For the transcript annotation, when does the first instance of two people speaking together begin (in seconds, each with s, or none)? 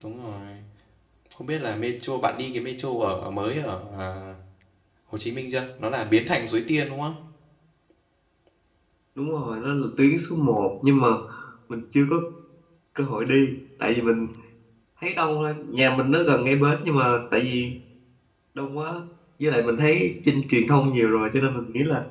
none